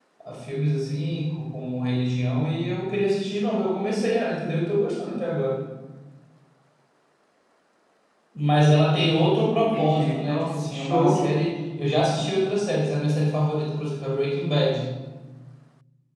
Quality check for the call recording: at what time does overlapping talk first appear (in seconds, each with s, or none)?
8.9 s